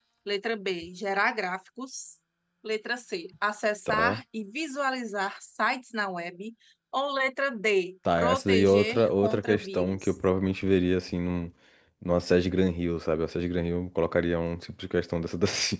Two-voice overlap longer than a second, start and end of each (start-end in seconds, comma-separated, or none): 8.2-10.1